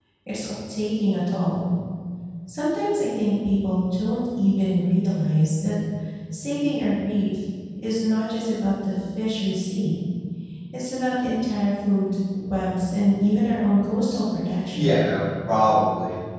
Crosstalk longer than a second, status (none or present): none